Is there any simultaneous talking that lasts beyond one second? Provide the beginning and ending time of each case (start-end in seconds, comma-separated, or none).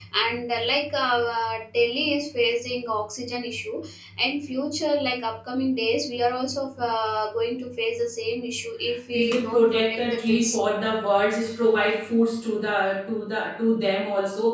9.1-10.6